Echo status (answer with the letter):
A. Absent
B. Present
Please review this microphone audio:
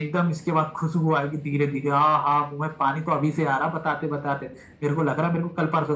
B